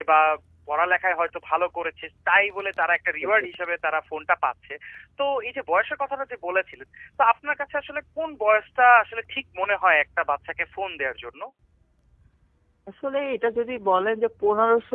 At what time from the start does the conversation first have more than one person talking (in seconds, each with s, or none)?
none